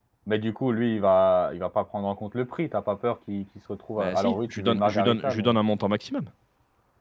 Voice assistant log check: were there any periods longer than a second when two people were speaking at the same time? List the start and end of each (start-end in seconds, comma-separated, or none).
4.0-5.6